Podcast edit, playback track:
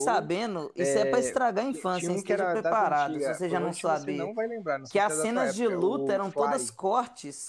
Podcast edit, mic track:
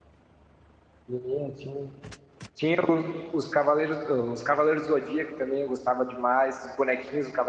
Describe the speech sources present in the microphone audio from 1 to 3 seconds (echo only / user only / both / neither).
user only